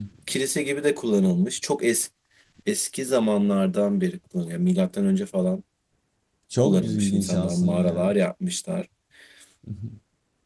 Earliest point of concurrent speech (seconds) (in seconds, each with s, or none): 6.6 s